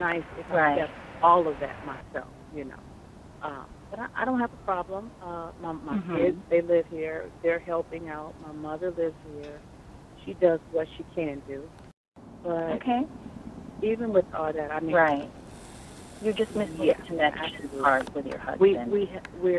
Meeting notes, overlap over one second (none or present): present